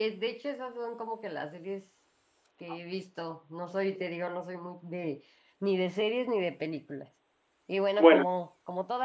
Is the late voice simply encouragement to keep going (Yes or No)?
Yes